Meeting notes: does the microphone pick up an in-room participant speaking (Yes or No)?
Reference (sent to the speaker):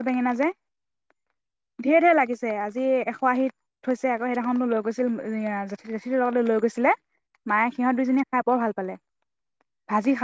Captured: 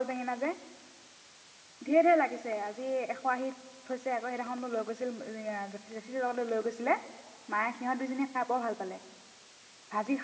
No